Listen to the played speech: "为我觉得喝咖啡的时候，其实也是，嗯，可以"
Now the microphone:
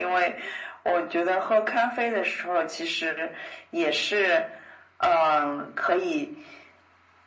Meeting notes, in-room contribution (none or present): none